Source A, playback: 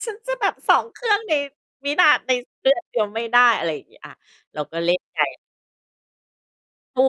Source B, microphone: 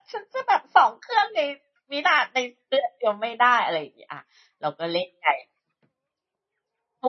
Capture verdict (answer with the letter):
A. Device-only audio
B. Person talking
A